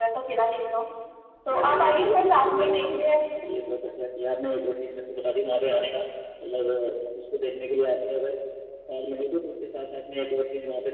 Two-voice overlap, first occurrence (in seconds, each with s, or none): 1.5 s